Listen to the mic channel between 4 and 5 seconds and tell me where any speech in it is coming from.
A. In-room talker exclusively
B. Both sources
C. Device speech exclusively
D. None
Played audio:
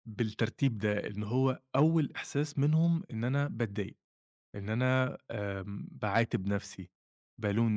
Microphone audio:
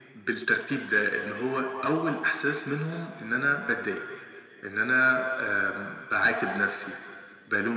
C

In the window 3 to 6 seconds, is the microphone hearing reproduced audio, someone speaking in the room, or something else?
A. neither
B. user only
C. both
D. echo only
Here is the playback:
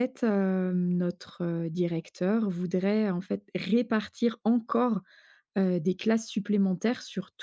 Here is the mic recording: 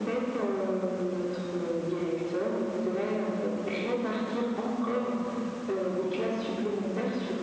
D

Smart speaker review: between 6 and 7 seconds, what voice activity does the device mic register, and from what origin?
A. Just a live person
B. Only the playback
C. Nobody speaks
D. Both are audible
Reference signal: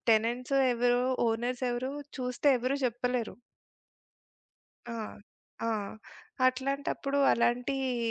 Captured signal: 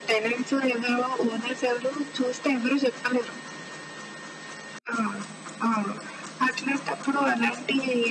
B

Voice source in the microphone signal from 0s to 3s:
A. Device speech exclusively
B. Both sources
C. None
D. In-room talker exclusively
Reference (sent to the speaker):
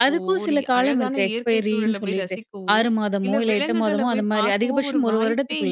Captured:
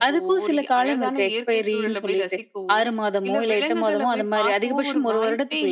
A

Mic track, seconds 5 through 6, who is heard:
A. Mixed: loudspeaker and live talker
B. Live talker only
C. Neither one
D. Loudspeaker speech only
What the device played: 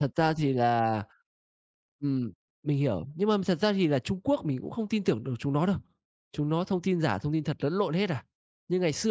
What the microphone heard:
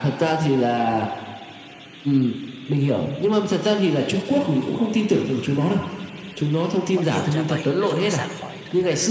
D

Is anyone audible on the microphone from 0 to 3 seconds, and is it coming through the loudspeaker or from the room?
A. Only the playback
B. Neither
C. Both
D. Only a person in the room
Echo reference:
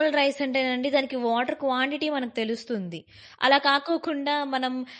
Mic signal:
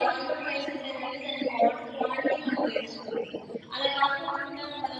A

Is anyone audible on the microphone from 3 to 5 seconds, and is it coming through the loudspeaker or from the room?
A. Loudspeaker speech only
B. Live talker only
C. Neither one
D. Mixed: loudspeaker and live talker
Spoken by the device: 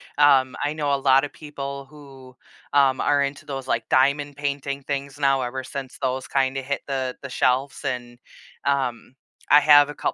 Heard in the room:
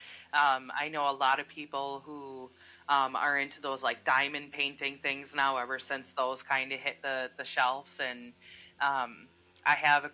A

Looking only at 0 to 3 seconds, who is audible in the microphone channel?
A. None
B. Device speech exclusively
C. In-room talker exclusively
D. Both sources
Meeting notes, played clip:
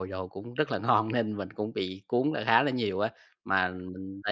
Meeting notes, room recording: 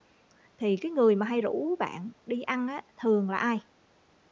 C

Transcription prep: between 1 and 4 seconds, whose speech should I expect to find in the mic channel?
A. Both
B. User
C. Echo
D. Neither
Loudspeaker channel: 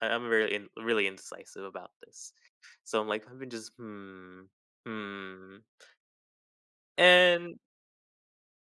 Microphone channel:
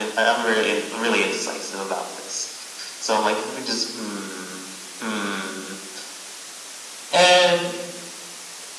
C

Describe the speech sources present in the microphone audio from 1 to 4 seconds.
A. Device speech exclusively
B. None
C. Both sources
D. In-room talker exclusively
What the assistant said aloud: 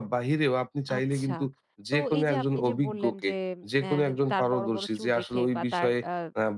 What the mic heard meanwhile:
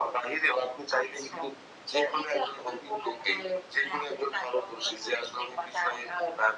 A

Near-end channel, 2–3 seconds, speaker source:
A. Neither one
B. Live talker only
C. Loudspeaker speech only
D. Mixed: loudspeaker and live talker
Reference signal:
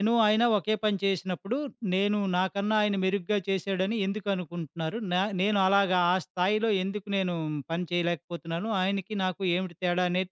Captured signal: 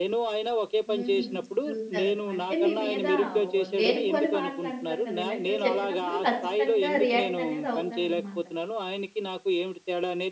D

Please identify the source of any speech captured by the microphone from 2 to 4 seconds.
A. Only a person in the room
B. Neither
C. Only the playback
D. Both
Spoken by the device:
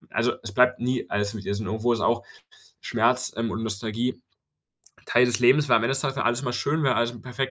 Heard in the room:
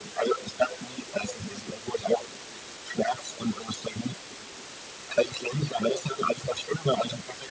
C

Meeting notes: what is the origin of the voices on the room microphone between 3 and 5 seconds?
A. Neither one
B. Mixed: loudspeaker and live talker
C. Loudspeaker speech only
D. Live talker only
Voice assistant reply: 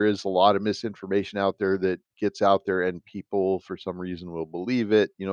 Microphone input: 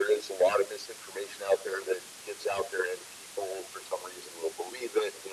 C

